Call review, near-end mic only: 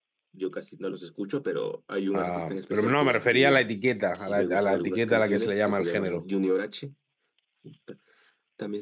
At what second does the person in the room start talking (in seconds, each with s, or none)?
2.1 s